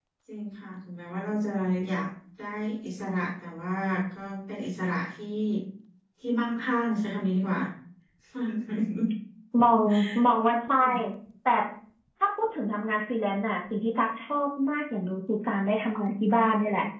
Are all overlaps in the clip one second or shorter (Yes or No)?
Yes